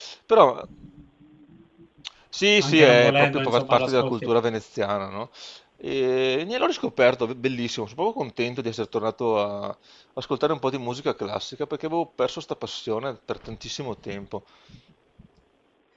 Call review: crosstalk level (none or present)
present